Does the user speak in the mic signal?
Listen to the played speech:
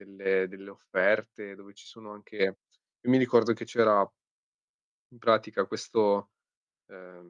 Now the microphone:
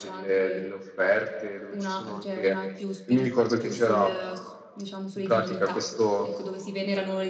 Yes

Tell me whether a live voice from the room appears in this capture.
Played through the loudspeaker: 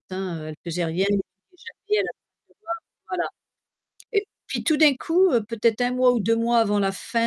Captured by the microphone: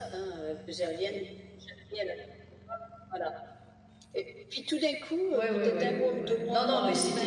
Yes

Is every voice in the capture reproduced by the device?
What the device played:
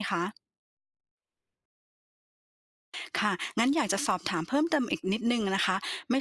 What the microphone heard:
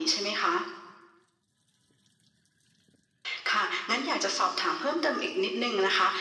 Yes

